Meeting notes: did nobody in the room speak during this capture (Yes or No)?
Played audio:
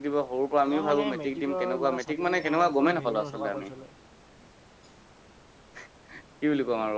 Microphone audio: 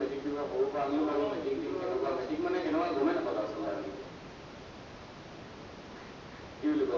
Yes